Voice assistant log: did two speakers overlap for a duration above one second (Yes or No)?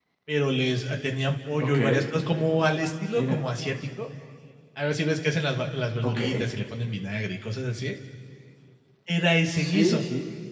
No